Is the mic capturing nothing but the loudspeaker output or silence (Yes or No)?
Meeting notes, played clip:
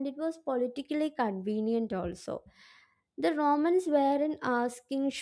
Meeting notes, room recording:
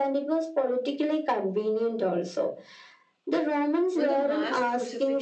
No